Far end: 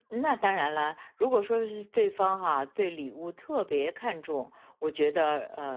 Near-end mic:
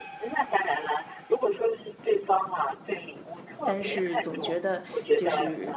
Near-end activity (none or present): present